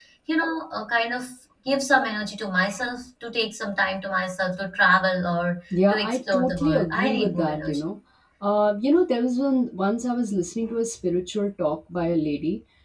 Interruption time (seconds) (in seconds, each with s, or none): 5.7 s